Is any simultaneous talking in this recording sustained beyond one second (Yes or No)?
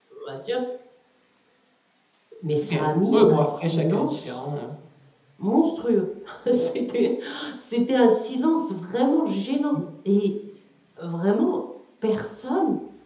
Yes